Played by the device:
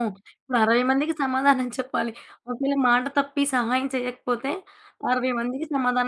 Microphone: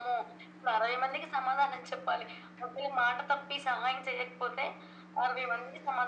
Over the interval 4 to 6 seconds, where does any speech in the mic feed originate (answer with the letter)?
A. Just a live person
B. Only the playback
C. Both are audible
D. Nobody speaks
B